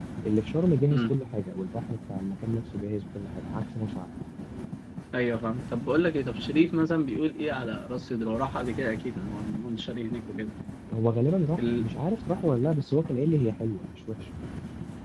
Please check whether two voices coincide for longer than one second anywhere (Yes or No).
No